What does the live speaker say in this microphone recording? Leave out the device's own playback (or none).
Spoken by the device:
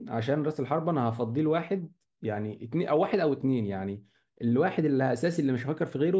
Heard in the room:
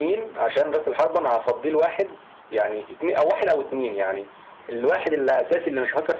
none